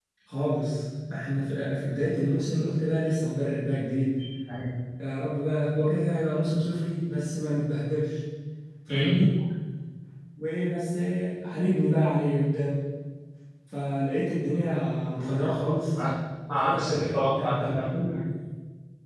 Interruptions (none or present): present